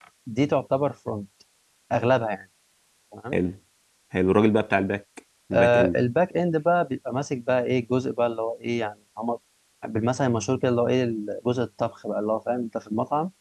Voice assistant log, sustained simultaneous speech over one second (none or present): none